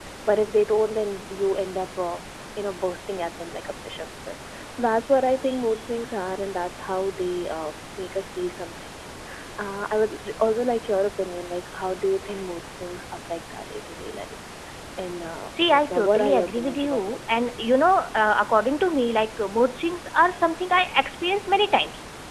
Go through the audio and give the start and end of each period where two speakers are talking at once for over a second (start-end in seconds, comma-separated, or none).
15.7-17.6